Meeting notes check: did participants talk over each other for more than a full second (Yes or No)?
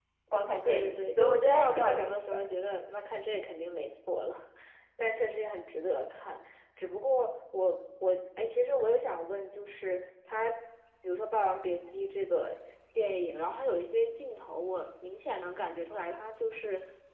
Yes